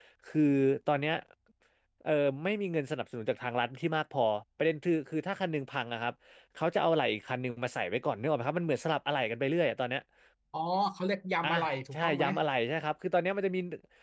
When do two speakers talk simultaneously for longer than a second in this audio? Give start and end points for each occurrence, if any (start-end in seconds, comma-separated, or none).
none